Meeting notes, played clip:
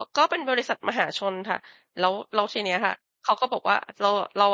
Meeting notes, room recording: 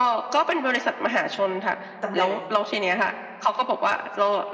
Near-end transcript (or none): ตำแหน่ง